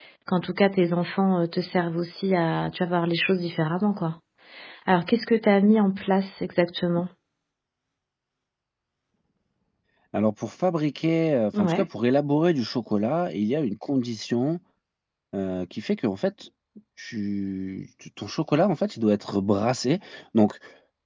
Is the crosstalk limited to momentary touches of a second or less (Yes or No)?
Yes